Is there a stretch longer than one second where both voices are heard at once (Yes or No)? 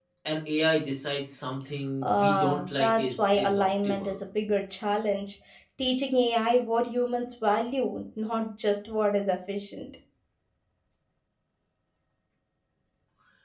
Yes